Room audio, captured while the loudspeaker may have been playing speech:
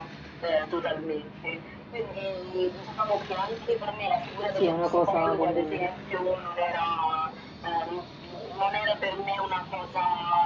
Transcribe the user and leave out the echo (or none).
Sì, è una cosa comune,